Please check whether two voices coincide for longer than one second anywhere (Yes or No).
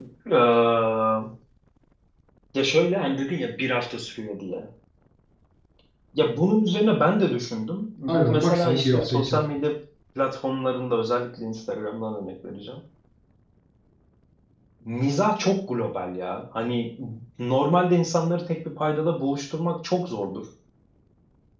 Yes